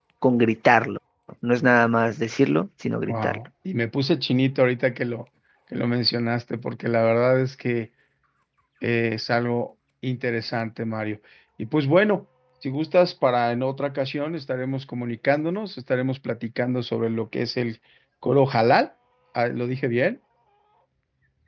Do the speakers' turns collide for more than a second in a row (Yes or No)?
No